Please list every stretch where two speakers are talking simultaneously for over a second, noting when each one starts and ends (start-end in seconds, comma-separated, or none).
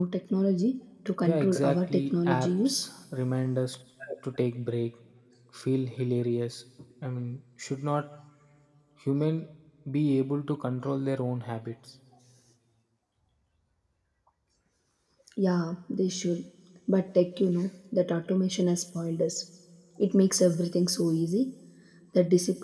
1.2-2.8